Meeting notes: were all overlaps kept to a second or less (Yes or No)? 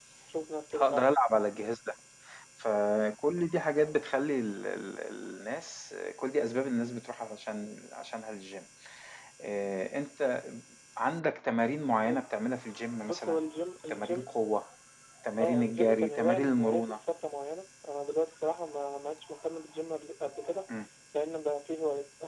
No